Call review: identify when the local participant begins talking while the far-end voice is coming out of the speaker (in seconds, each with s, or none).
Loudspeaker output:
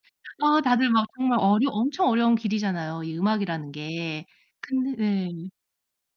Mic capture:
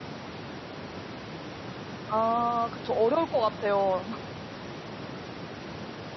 2.1 s